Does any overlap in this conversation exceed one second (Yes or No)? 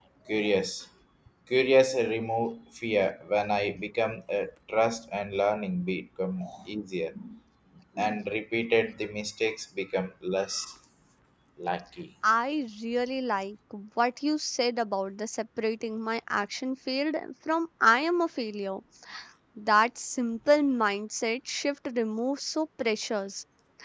No